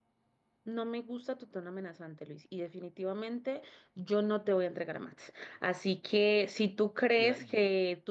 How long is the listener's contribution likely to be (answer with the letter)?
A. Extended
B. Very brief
B